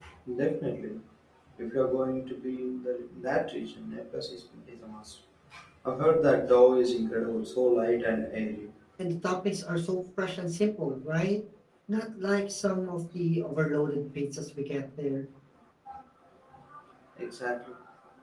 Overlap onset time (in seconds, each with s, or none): none